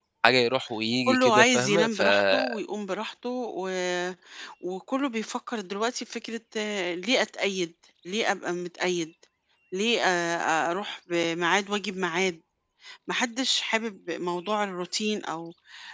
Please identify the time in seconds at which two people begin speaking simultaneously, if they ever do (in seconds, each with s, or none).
1.1 s